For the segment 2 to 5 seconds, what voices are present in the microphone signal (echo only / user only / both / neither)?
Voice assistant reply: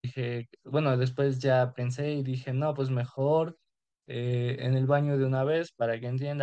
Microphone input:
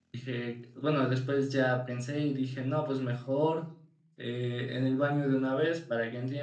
echo only